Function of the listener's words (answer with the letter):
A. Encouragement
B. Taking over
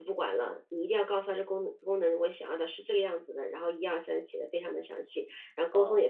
A